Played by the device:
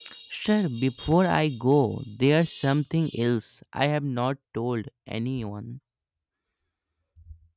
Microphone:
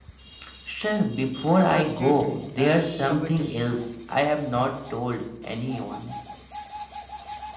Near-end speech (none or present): present